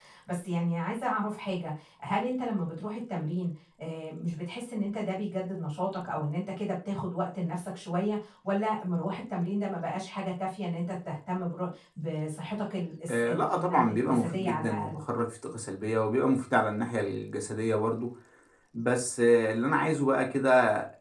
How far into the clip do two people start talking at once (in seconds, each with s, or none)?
13.1 s